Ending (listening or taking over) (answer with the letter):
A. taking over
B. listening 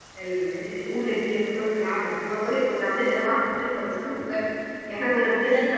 B